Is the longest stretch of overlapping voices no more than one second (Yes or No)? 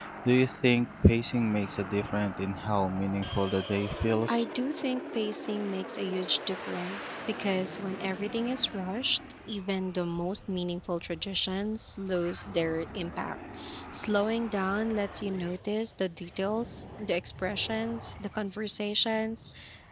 Yes